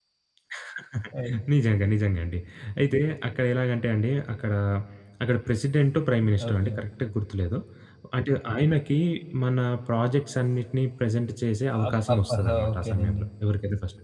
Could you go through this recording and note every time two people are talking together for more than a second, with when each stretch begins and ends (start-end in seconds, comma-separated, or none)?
11.9-13.2